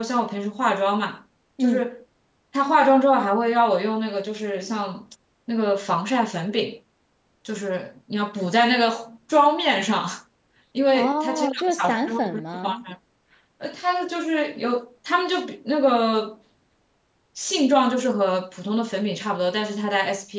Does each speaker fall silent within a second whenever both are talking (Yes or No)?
No